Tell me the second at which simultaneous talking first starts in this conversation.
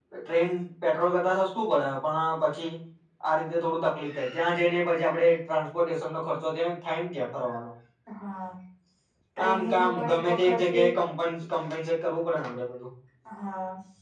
9.4 s

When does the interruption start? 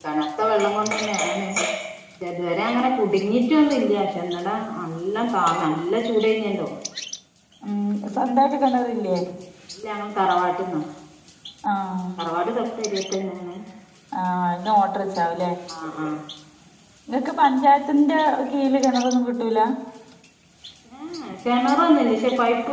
none

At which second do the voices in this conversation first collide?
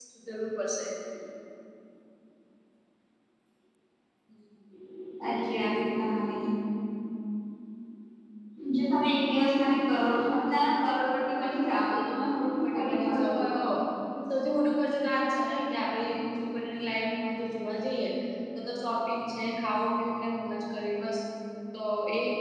12.3 s

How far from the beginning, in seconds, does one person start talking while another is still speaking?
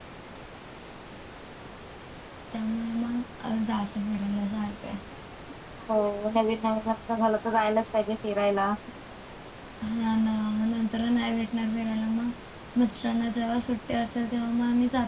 none

